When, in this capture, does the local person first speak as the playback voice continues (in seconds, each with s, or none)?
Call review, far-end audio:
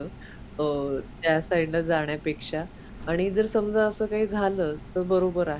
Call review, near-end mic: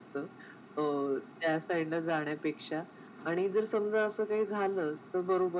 none